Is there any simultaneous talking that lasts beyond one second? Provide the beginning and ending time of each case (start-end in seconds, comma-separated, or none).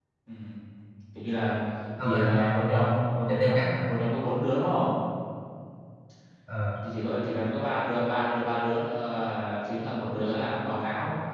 2.0-3.9